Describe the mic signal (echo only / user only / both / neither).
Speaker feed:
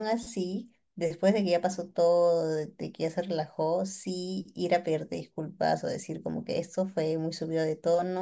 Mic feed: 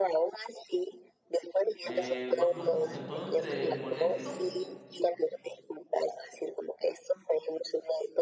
both